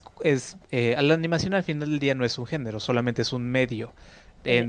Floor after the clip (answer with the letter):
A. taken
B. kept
B